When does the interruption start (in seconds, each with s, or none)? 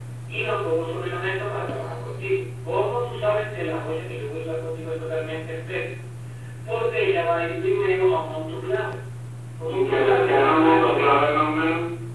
9.7 s